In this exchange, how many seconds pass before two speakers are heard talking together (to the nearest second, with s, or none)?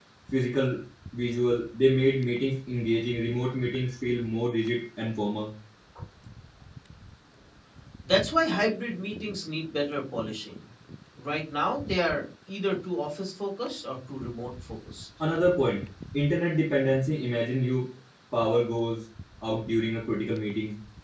none